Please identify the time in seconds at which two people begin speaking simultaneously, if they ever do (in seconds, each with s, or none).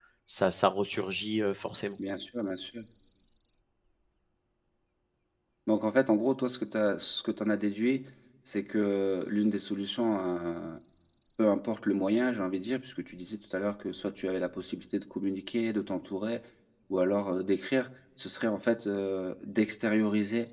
none